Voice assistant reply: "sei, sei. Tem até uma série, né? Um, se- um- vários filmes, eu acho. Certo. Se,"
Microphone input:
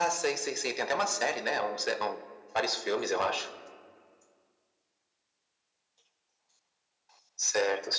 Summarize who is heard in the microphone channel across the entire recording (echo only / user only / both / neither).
echo only